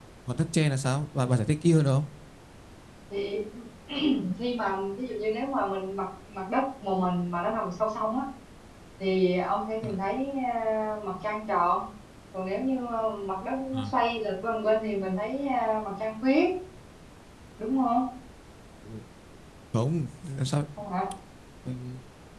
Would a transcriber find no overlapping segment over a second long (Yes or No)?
Yes